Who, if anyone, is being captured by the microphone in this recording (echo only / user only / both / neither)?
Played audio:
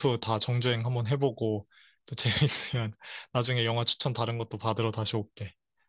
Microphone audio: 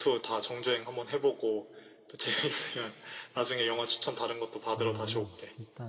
both